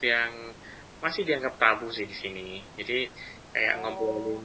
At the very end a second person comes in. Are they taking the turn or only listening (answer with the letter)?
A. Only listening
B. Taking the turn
A